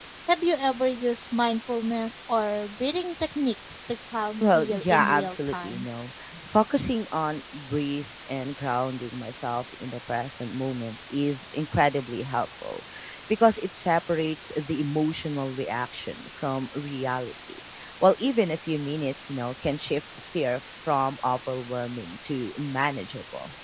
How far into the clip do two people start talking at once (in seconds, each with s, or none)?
4.4 s